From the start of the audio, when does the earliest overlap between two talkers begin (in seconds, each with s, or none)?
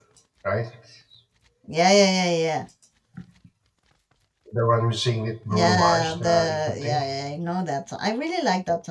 5.5 s